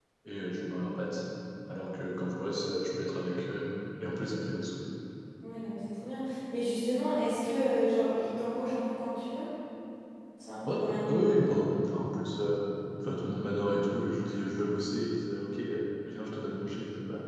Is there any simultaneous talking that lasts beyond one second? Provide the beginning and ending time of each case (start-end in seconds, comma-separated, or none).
none